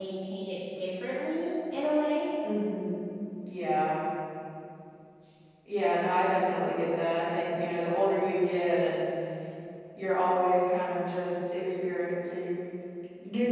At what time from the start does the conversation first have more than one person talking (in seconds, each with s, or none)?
none